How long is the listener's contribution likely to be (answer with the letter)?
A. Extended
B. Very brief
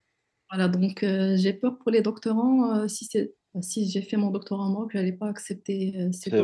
A